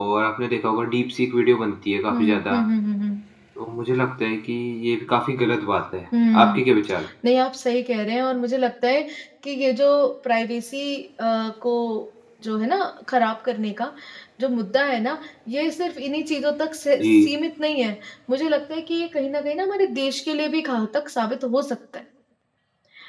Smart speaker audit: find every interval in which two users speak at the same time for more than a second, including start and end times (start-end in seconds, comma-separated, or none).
none